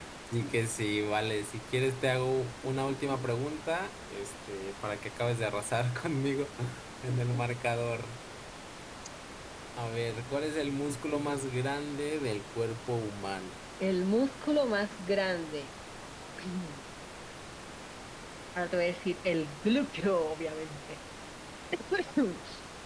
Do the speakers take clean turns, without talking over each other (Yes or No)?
Yes